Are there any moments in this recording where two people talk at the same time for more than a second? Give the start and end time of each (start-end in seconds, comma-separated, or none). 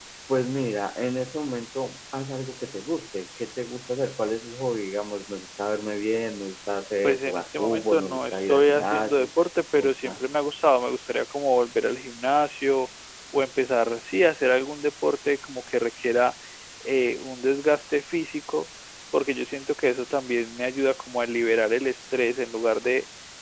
7.0-9.3